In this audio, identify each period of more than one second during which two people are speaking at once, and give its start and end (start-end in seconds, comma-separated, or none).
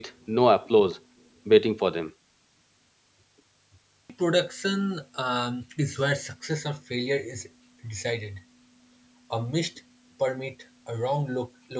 none